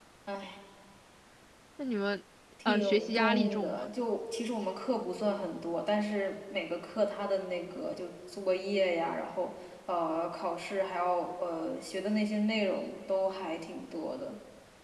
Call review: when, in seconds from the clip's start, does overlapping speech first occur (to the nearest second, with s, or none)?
3 s